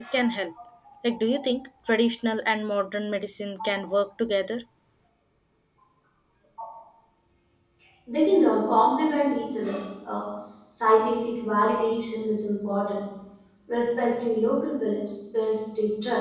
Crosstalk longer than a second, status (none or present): none